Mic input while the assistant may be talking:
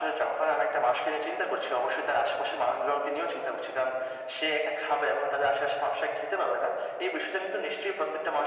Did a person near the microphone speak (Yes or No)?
No